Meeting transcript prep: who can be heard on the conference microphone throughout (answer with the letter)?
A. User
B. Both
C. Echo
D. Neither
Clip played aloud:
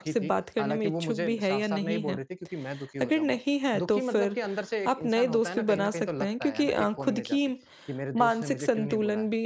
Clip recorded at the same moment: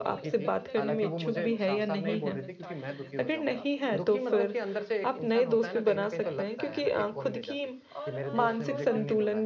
B